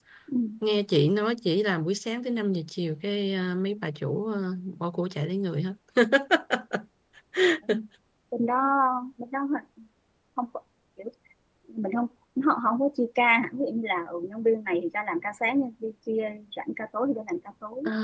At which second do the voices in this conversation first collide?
none

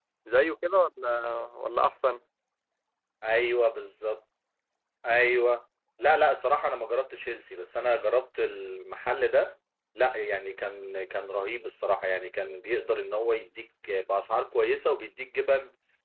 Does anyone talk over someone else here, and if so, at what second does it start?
none

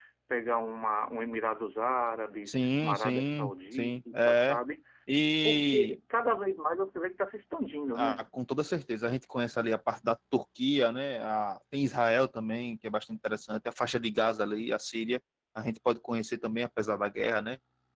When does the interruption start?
2.5 s

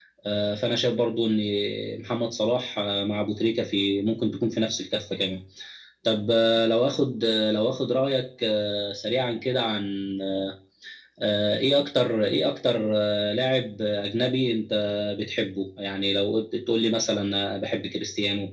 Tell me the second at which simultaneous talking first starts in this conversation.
none

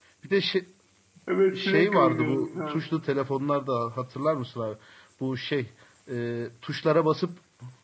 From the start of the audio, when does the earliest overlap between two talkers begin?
1.6 s

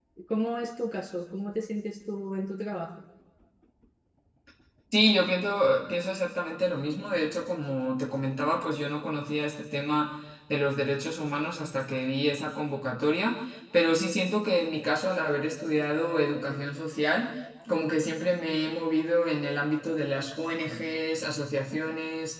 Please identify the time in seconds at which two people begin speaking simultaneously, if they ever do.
none

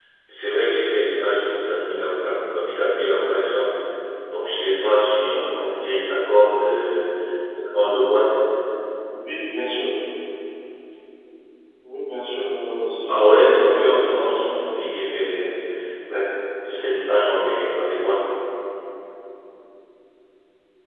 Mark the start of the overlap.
13.1 s

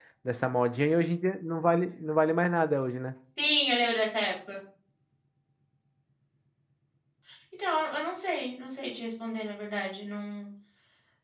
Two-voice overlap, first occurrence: none

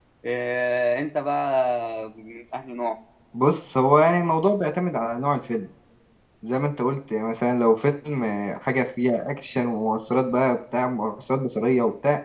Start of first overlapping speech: none

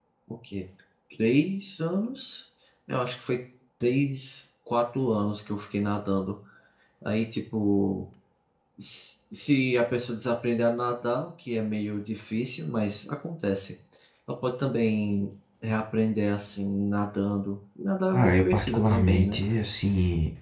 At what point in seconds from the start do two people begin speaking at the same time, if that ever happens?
18.1 s

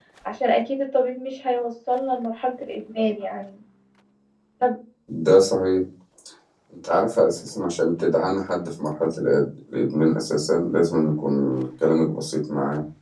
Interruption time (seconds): none

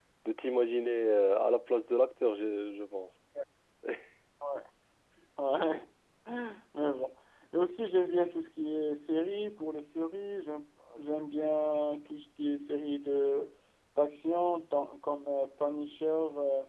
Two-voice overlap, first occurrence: none

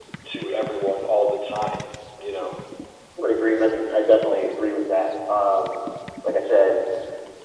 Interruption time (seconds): none

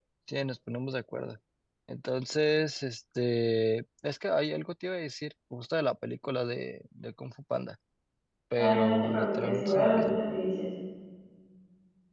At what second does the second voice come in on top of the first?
8.6 s

